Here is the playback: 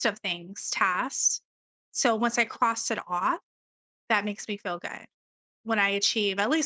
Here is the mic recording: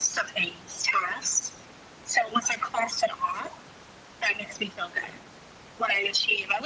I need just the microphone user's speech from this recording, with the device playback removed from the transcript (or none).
none